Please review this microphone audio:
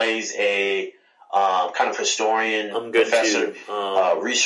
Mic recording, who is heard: both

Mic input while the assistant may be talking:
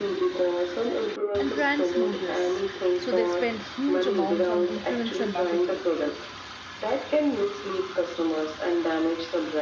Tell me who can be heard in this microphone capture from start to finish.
both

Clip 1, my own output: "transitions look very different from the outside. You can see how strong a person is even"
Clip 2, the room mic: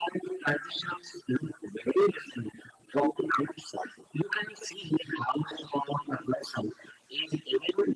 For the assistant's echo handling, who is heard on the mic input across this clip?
echo only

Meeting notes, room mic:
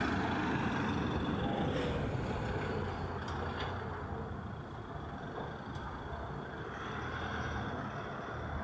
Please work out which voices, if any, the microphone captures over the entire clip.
neither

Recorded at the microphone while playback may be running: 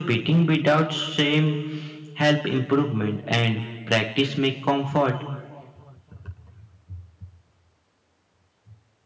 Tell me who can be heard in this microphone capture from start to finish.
echo only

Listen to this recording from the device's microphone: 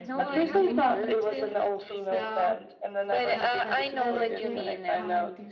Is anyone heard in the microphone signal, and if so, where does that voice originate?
both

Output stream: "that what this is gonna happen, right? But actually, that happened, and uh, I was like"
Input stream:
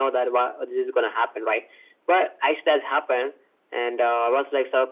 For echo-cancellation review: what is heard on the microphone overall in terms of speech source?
echo only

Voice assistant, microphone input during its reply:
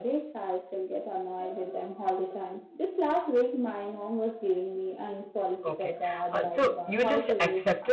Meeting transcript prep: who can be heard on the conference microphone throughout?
both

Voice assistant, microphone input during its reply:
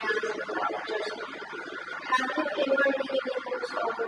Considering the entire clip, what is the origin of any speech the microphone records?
echo only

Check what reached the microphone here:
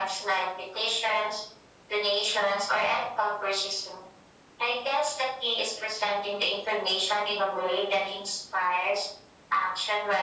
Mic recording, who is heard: echo only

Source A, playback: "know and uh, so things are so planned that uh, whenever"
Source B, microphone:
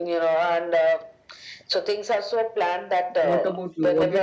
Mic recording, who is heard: both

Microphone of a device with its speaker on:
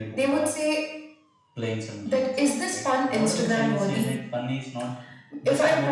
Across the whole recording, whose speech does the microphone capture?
both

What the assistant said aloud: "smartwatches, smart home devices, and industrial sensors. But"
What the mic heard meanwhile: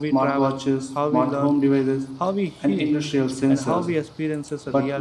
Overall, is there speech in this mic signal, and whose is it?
both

